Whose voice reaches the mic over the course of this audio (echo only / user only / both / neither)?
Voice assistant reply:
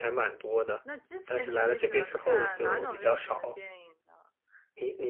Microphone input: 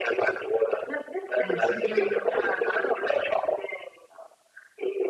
both